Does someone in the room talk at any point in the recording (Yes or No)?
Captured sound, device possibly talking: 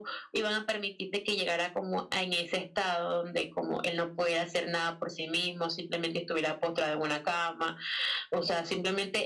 No